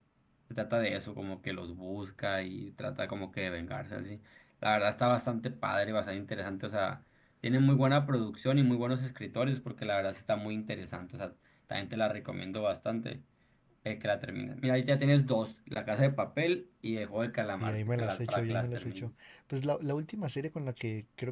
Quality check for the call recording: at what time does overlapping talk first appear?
17.6 s

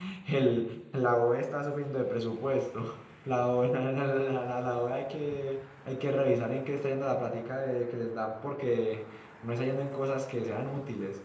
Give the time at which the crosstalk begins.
none

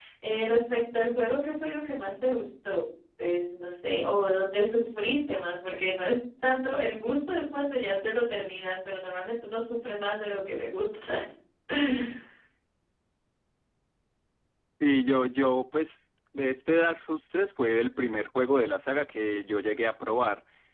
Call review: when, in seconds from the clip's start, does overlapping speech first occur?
none

